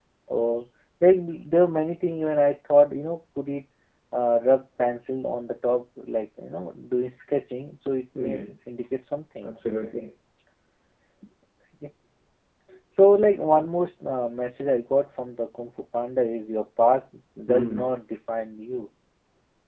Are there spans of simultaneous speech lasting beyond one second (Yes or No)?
No